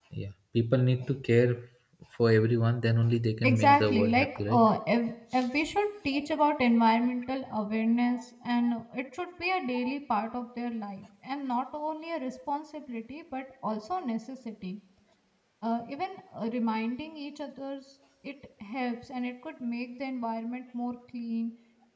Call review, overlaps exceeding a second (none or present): present